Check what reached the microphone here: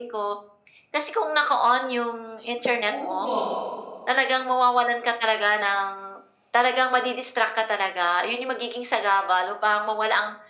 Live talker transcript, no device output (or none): opo,